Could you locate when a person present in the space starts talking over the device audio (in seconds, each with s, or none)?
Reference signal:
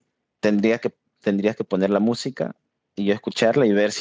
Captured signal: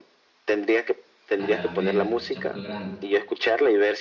1.4 s